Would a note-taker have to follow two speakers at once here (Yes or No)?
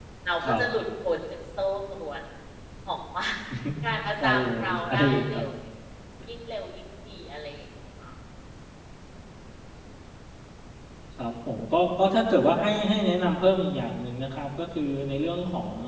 Yes